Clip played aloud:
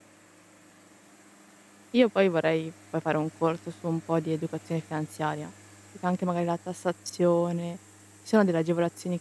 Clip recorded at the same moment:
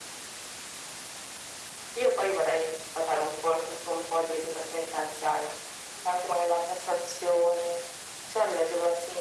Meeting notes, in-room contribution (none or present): none